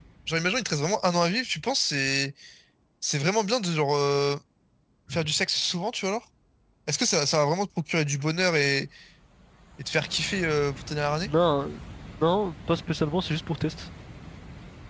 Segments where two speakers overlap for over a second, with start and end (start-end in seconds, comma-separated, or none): none